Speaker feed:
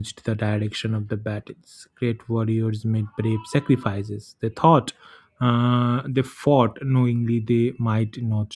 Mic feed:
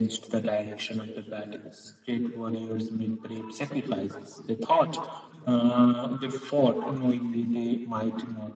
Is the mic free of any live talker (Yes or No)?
Yes